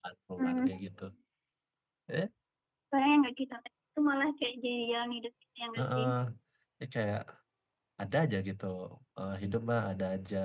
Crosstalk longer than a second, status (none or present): none